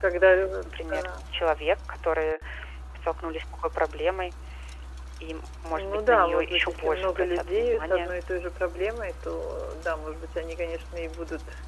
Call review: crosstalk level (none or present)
present